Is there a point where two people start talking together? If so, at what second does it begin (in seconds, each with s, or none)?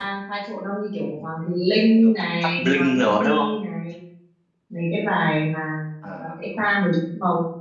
2.0 s